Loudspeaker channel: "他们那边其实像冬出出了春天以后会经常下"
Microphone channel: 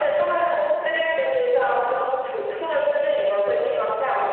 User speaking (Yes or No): No